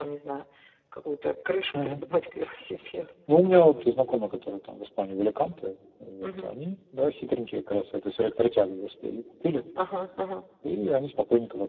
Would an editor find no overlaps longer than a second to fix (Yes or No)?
Yes